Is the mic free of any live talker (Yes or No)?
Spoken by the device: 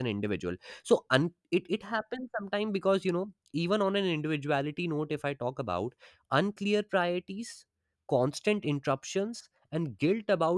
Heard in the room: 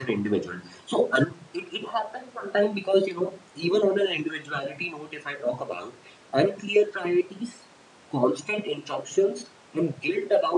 Yes